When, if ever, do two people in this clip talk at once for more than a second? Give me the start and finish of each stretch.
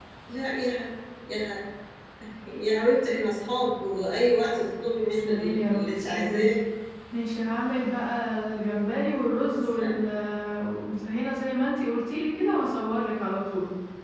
5.1-6.4

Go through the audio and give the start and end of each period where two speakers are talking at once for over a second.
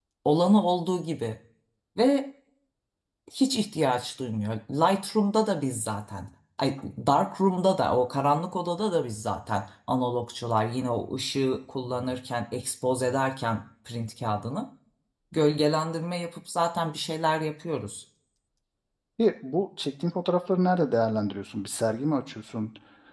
none

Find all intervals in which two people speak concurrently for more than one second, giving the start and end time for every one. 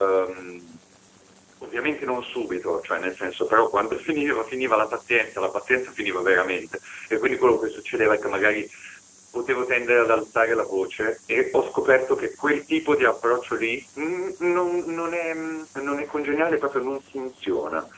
none

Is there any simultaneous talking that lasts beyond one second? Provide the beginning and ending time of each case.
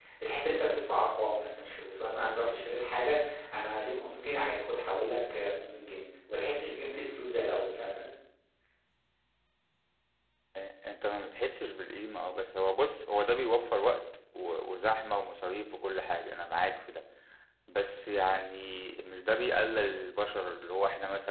none

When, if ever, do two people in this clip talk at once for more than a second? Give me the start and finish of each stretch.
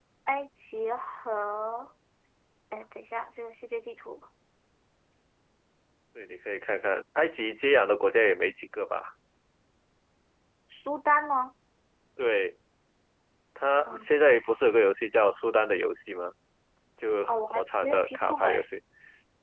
17.3-18.6

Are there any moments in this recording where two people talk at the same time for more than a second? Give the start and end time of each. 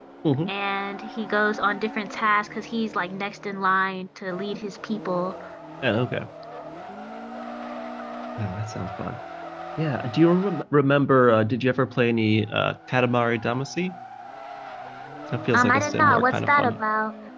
15.5-16.8

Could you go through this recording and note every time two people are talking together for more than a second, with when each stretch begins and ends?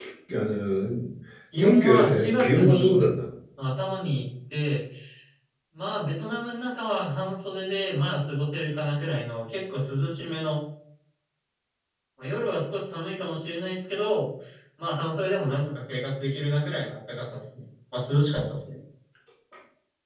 1.6-3.0

